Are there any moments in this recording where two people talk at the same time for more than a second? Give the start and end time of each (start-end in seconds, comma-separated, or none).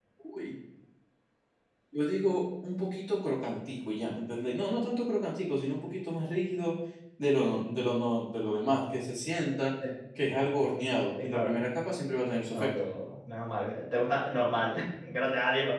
none